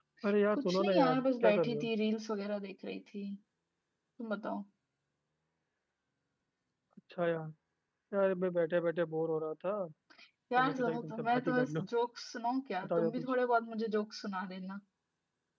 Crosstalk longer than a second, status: present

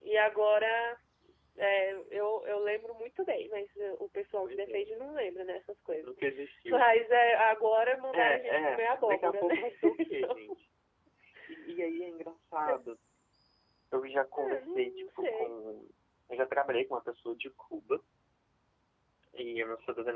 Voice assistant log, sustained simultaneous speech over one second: present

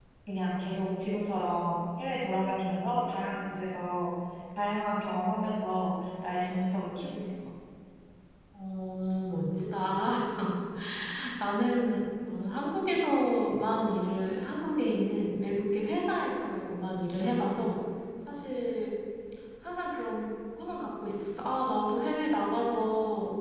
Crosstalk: none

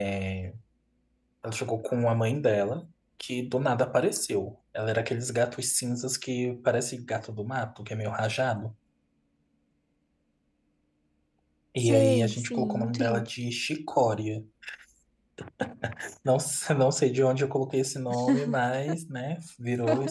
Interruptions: present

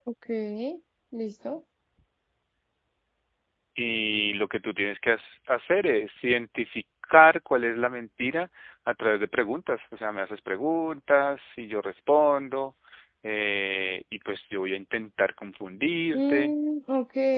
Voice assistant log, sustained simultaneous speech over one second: none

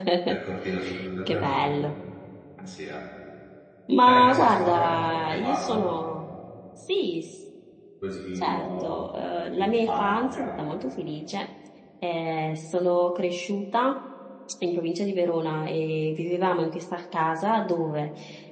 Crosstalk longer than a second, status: present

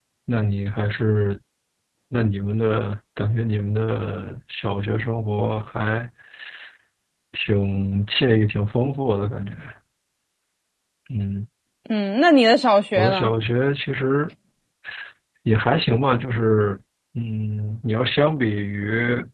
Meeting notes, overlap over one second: none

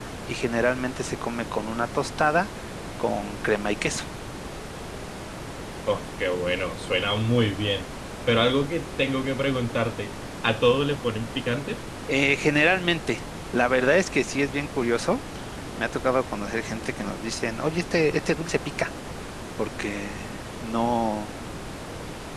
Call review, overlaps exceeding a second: none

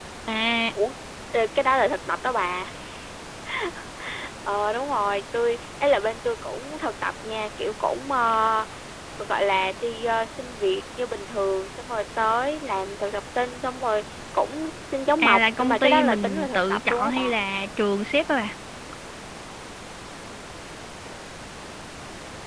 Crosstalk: present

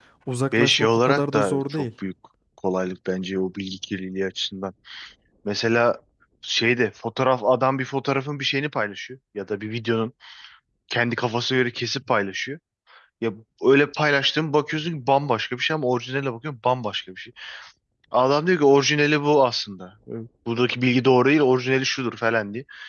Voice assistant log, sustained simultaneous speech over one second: present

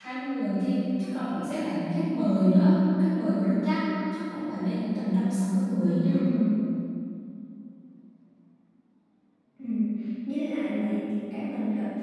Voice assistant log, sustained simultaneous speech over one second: none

